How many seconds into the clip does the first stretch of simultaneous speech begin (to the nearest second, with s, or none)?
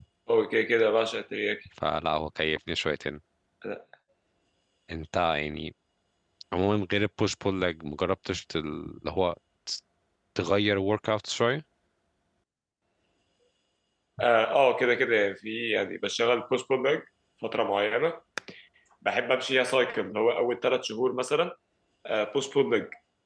none